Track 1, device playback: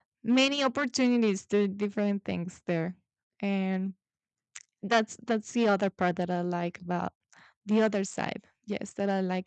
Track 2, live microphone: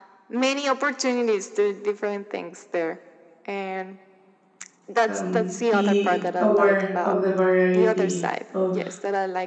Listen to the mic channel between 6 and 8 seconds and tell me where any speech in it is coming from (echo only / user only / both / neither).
both